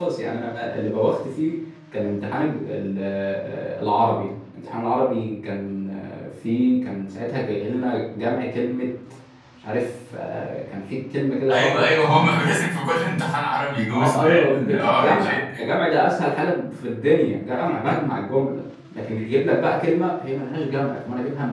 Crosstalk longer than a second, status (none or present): present